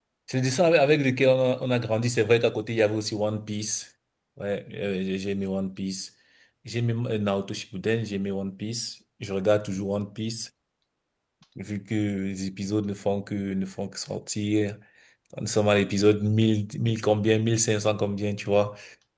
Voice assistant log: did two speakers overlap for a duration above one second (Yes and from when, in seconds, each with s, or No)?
No